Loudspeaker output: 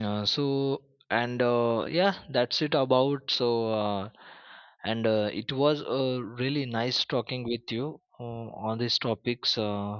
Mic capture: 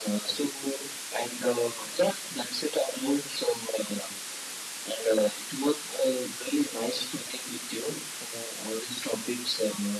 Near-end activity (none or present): none